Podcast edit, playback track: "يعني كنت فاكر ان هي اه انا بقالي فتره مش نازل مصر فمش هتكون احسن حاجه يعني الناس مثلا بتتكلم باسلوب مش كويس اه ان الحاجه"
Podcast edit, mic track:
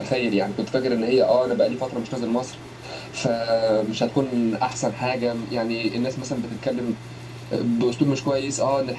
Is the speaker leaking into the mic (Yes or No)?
Yes